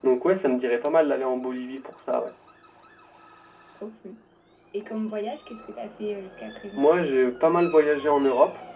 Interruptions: none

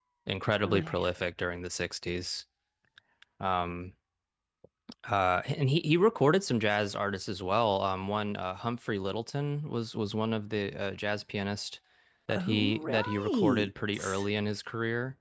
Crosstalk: present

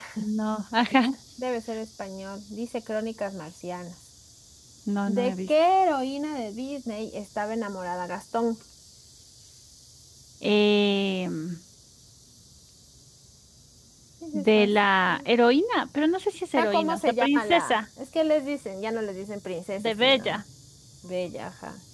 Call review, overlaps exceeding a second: present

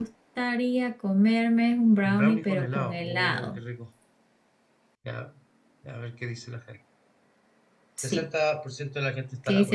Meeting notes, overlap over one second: present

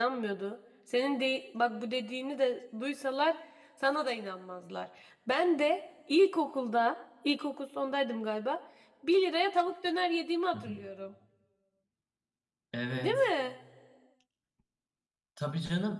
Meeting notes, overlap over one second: none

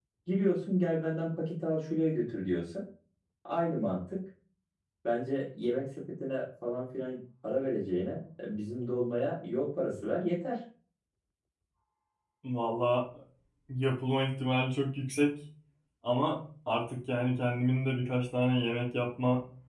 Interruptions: none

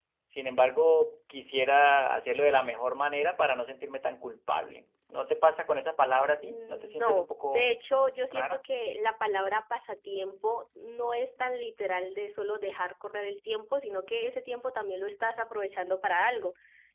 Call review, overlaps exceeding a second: present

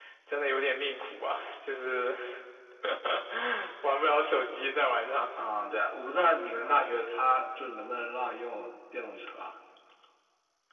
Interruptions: none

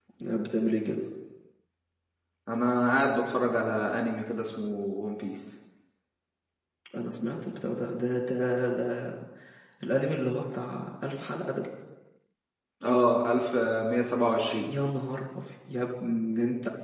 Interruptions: none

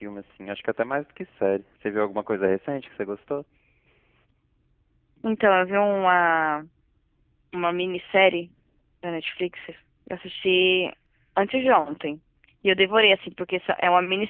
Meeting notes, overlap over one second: none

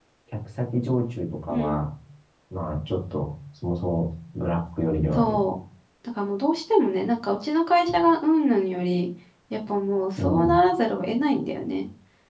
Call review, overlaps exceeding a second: none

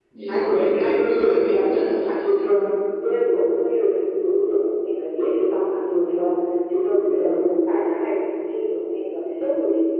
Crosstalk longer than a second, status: present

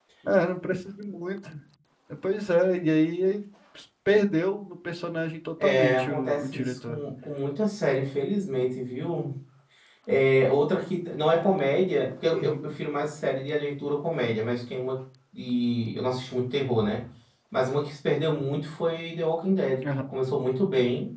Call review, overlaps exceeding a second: present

